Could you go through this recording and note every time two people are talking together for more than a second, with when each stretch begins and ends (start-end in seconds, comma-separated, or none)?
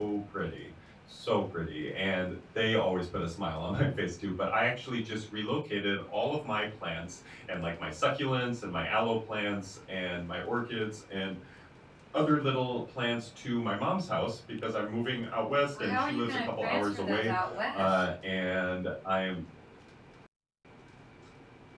15.8-17.3